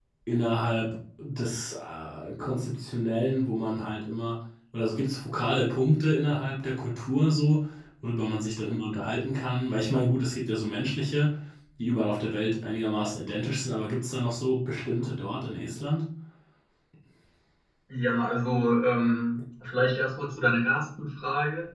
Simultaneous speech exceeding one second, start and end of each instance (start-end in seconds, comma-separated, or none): none